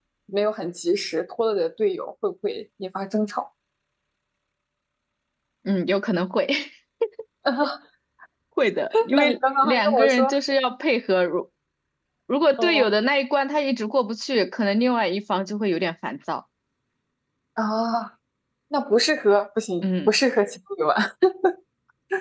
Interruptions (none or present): present